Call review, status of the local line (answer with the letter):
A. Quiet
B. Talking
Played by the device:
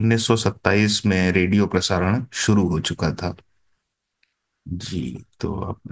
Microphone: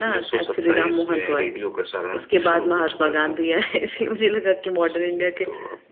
B